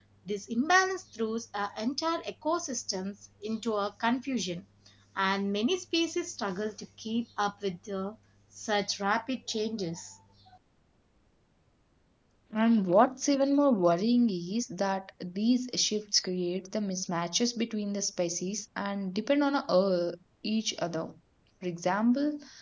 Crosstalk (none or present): none